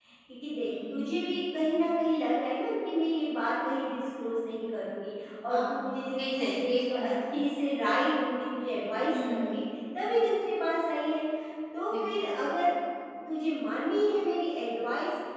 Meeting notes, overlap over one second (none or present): present